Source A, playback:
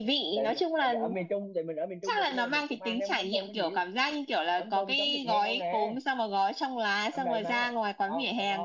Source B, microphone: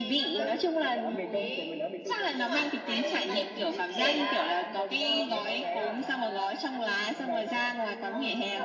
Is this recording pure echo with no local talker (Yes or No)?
No